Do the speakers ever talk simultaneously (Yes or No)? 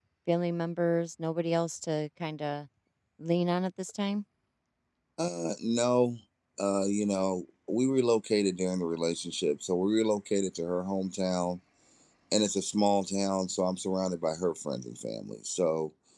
No